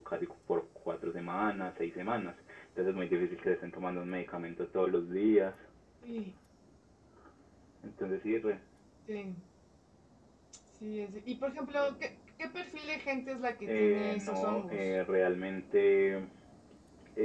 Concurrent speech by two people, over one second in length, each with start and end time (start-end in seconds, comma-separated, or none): 13.7-14.9